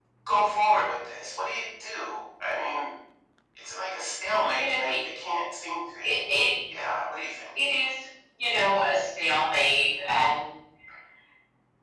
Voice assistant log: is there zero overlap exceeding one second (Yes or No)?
Yes